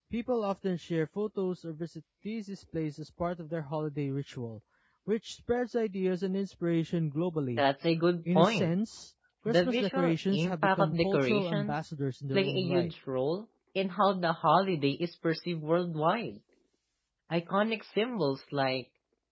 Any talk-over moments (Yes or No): Yes